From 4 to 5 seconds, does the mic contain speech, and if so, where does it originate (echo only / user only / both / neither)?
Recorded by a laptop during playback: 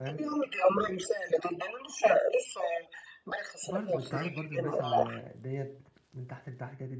both